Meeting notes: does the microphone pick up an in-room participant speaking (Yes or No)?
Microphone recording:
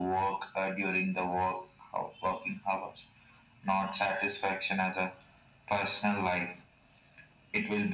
No